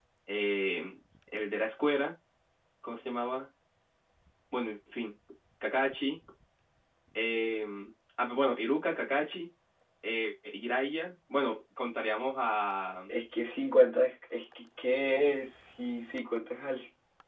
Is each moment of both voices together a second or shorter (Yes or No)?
Yes